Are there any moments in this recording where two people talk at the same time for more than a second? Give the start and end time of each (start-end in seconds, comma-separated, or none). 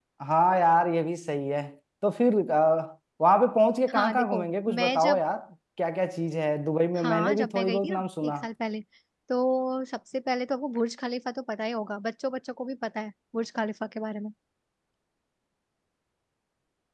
3.9-5.2, 7.0-8.3